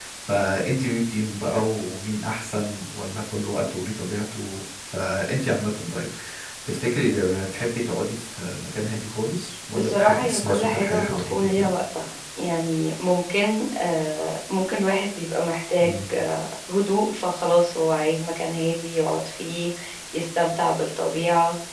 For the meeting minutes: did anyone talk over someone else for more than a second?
Yes, from 9.7 s

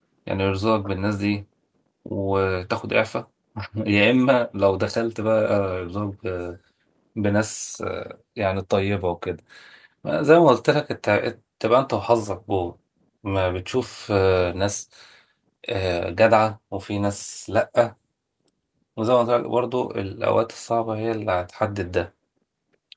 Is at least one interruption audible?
No

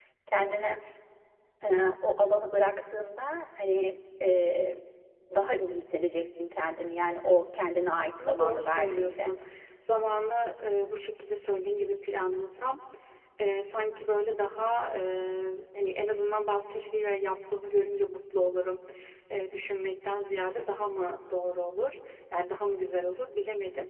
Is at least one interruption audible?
Yes, from 7.9 s

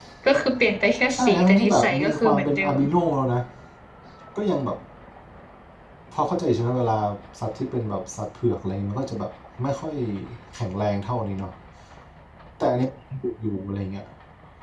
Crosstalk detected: Yes, from 1.1 s

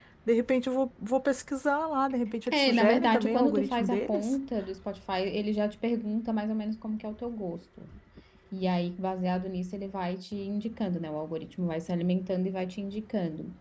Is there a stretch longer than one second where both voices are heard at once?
Yes, from 2.3 s

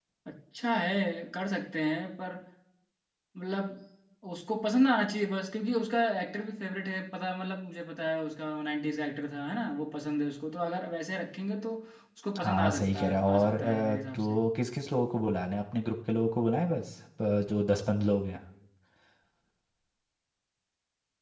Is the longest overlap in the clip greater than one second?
Yes, from 12.4 s

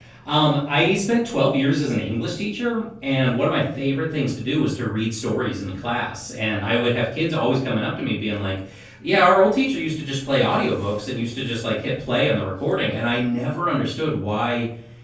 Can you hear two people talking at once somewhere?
No

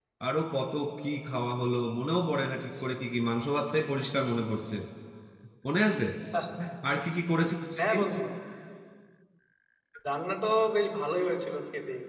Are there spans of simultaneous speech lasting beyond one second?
No

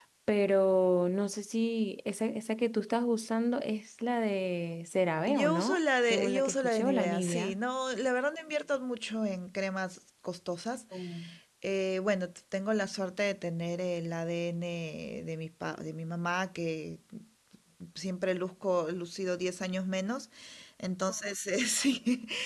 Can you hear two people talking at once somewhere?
Yes, from 5.3 s

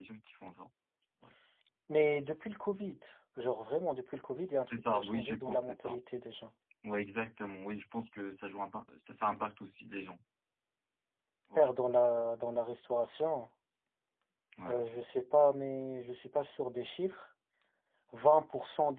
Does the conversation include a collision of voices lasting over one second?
Yes, from 4.7 s

